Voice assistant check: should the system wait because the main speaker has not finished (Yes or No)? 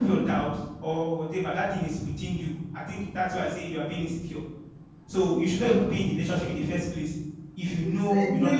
No